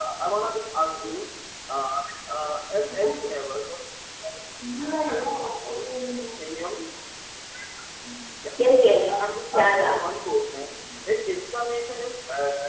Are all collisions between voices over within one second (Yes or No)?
Yes